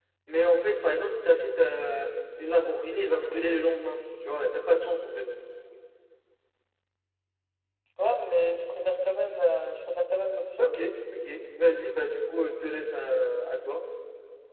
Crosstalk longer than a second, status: none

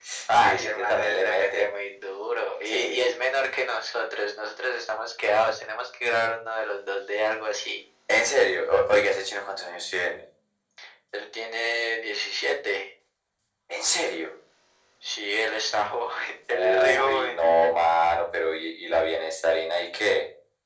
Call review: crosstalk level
present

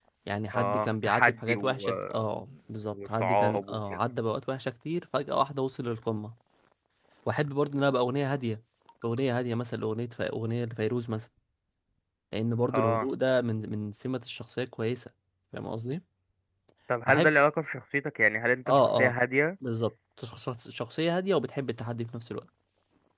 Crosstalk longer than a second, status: present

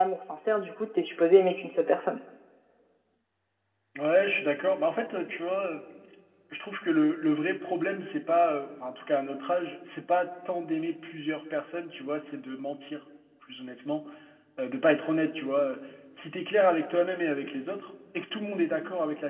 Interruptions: none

